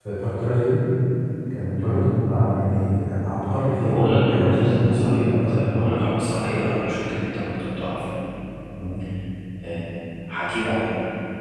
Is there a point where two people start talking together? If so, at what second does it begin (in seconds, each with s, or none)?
3.8 s